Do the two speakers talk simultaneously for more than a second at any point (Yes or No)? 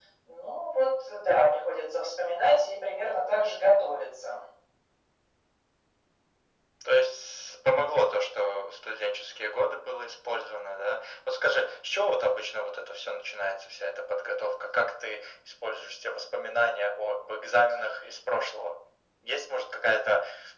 No